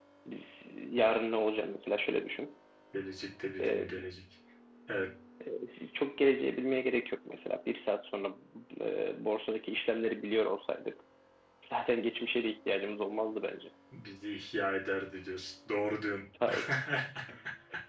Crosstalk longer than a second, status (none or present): none